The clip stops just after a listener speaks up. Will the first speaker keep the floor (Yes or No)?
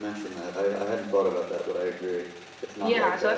No